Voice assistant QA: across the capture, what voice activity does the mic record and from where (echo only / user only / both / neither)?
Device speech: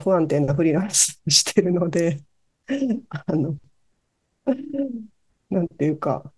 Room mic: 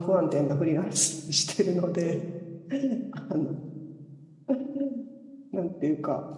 both